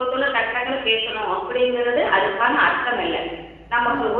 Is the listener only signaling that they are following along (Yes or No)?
Yes